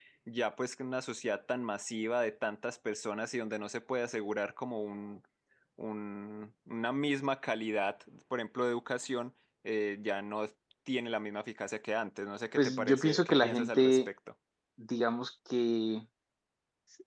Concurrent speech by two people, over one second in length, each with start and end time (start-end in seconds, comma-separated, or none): 12.6-14.1